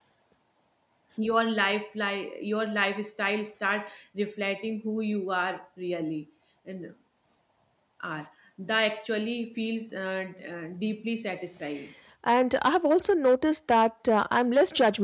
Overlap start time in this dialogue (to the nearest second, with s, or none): none